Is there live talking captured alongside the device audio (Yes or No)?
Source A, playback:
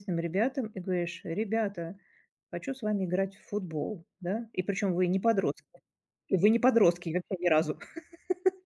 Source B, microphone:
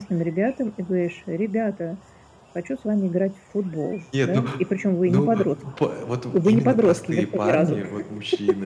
Yes